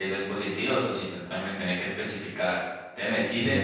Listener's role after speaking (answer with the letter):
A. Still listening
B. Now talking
A